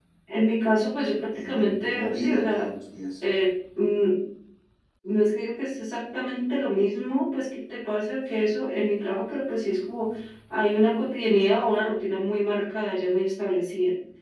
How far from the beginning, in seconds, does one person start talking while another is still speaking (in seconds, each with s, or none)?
1.3 s